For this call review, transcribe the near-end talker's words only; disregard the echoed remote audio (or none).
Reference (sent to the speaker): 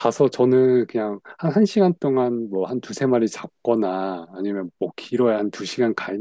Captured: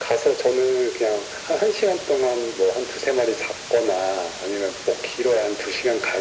none